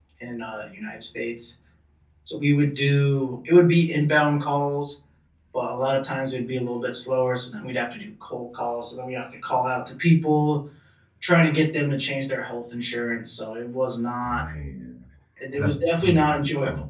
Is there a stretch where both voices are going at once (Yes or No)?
Yes